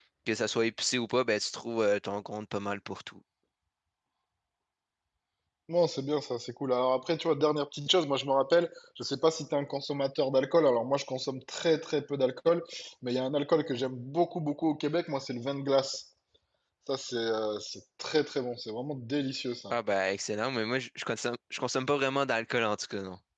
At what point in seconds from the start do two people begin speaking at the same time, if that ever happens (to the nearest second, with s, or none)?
none